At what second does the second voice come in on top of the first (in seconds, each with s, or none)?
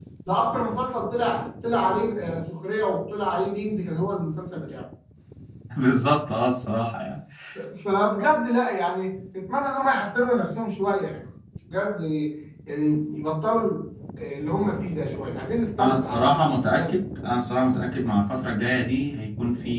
15.8 s